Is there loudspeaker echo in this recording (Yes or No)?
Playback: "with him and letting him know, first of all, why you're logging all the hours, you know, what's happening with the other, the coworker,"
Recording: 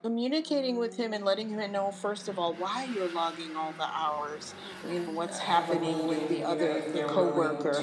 Yes